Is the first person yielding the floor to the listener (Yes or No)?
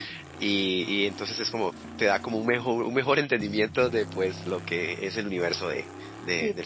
Yes